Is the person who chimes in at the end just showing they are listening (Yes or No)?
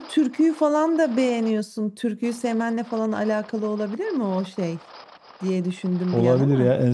No